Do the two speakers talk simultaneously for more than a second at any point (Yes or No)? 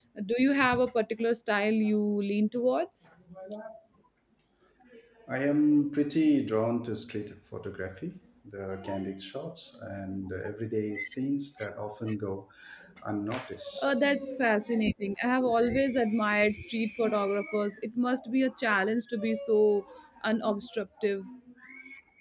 No